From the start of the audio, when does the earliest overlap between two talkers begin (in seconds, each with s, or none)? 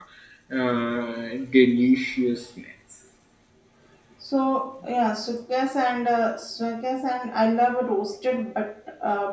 none